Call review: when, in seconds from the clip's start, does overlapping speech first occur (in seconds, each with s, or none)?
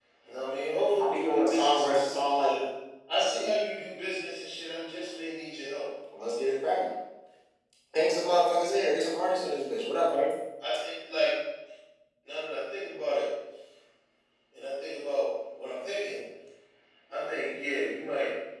1.0 s